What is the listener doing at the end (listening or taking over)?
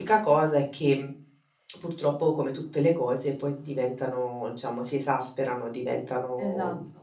taking over